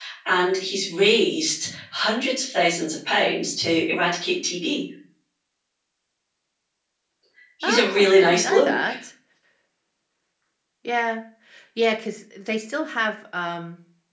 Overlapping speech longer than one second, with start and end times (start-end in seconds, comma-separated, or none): 7.6-8.9